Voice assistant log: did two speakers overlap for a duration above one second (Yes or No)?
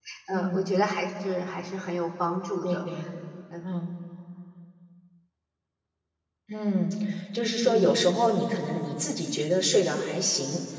No